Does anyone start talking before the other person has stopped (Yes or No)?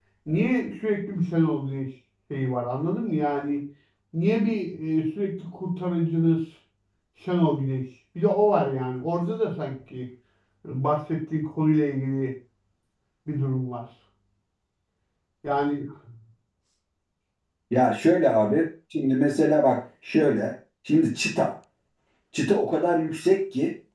No